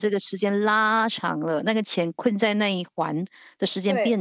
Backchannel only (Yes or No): No